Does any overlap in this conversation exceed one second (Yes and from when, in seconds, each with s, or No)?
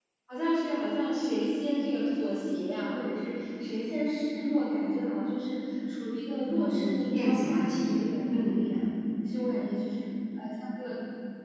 Yes, from 6.5 s